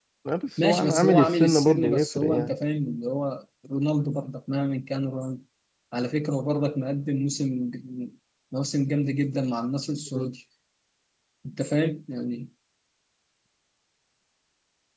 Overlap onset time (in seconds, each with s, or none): 0.6 s